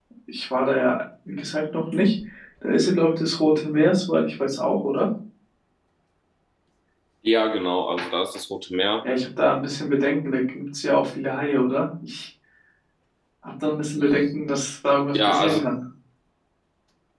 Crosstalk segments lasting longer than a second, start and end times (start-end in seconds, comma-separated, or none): none